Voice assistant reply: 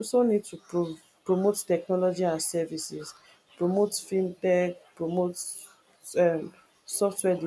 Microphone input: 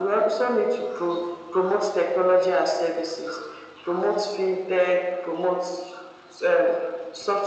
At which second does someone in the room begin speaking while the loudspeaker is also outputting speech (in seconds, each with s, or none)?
none